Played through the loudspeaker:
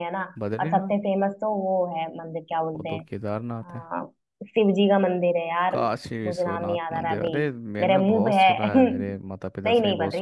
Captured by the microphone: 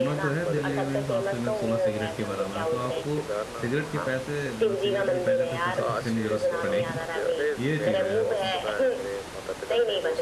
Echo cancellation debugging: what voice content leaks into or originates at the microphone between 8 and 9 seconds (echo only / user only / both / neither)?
both